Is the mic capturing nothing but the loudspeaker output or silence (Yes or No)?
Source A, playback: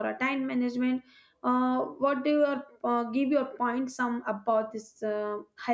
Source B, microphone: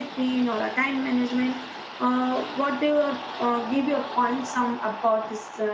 Yes